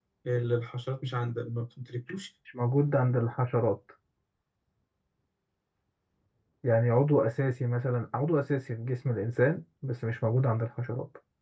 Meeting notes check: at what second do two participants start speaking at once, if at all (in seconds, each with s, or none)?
none